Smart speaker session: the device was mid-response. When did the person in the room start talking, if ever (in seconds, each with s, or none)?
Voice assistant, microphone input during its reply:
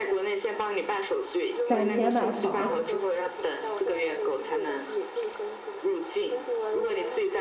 1.6 s